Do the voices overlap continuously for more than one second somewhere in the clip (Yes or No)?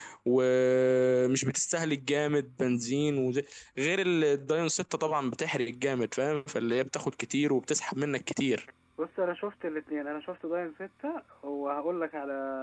No